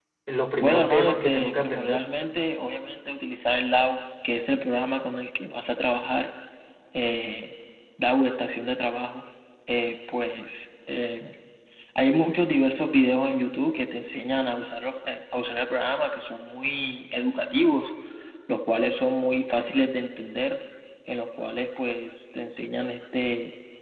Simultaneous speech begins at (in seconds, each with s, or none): 0.6 s